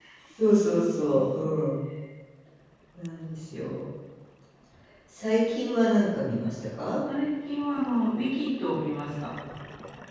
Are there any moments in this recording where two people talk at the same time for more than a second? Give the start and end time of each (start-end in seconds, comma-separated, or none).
none